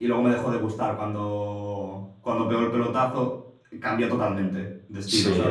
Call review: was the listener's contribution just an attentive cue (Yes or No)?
No